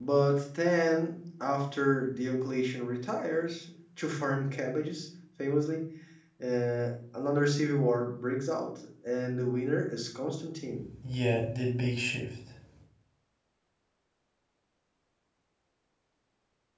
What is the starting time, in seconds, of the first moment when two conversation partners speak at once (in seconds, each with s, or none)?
none